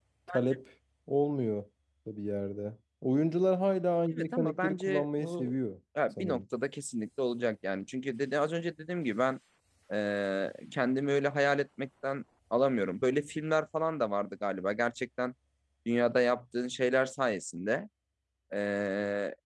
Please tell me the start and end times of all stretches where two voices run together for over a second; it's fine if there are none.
4.2-5.5

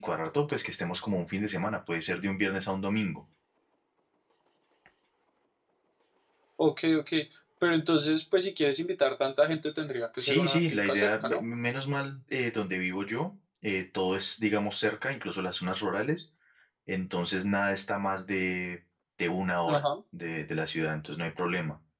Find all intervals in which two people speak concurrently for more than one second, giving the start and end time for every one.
10.2-11.4

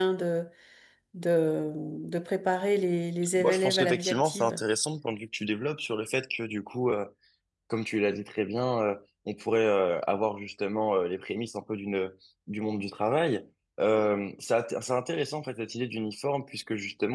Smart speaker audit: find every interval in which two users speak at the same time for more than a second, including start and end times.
3.4-4.6

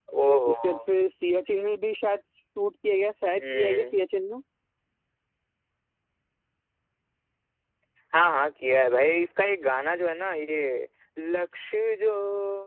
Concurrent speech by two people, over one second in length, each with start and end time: none

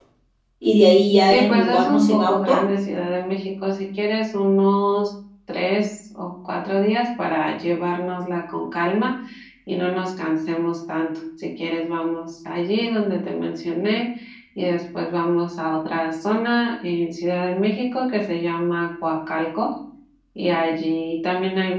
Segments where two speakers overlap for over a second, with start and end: 1.3-2.6

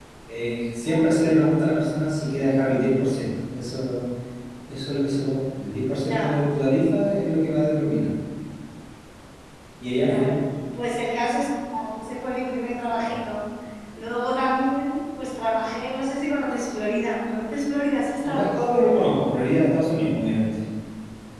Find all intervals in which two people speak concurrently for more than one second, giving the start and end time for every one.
none

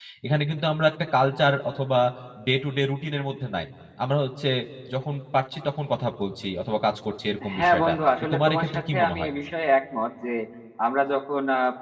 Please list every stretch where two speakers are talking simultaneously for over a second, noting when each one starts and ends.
7.5-9.3

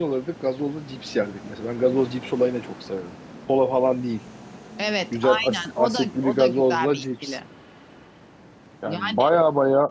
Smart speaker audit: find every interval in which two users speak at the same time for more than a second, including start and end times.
5.1-7.4

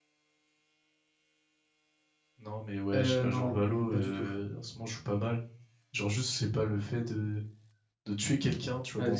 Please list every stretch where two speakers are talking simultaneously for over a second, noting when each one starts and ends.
2.9-4.3

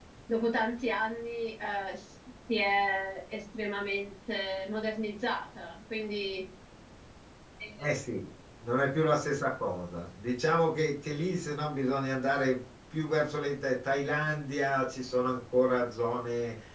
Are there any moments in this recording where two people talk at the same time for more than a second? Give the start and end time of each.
none

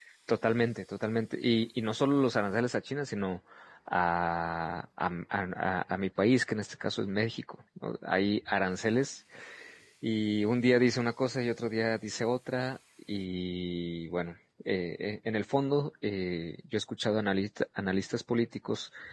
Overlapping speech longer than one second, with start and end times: none

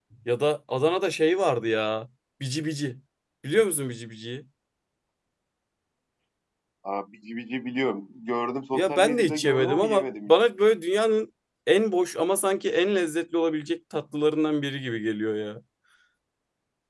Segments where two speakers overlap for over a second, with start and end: 8.7-10.5

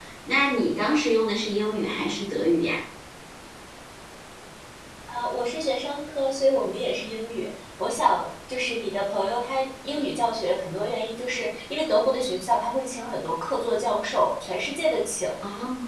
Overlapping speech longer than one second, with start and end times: none

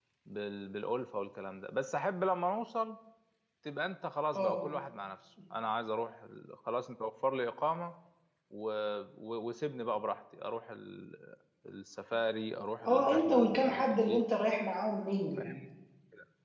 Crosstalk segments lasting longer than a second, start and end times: 12.9-14.2

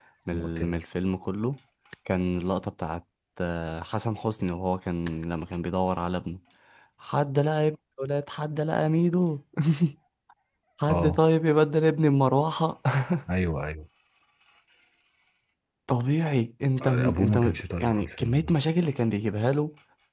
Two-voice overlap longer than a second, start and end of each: 16.8-18.6

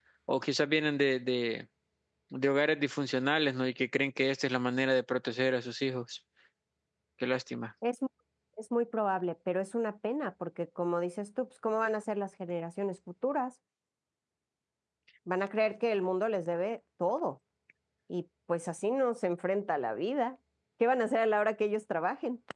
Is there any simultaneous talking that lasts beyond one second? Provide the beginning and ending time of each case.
none

